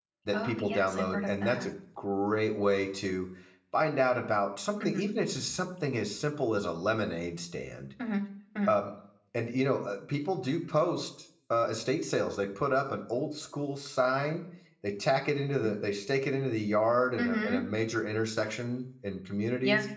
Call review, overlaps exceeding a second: present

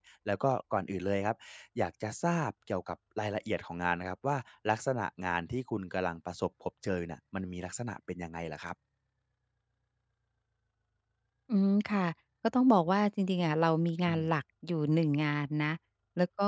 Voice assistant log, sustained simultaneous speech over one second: none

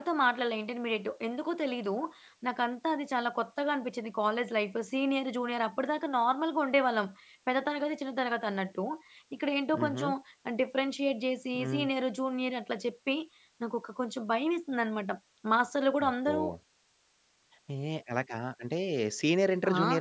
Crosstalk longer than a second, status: none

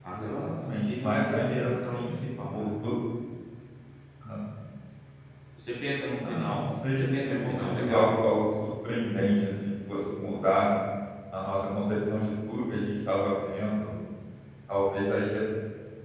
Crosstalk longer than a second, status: present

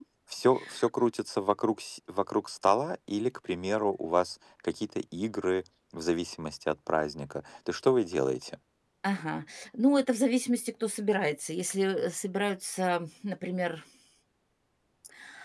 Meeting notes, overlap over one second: none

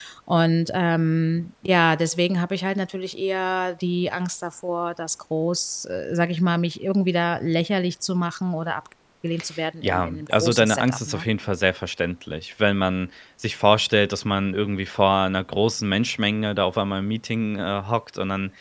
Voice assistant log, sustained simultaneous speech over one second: present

